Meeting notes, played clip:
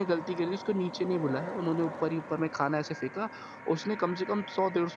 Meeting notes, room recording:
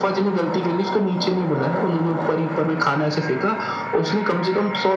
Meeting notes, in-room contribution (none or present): none